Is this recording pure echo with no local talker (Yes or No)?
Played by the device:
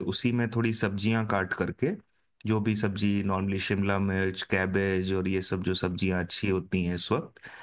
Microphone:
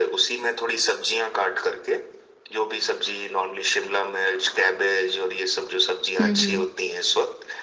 No